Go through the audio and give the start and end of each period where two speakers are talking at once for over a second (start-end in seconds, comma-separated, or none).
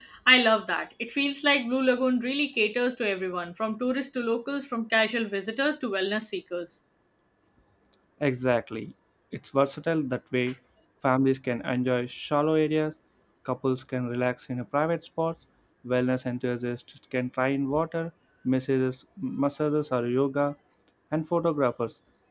none